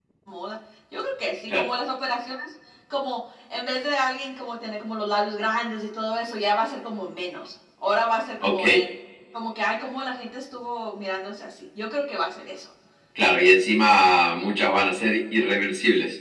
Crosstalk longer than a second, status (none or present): none